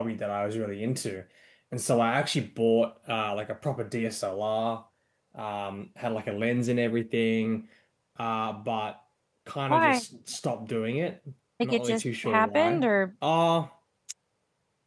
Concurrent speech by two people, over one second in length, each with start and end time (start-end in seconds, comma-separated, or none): 11.6-12.9